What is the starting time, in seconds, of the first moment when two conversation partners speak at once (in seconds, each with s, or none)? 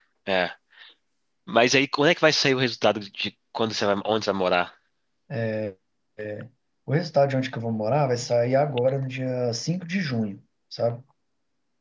none